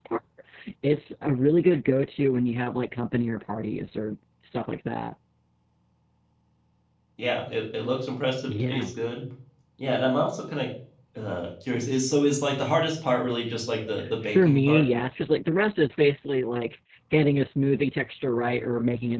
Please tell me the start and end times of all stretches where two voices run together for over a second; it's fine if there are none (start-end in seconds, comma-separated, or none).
none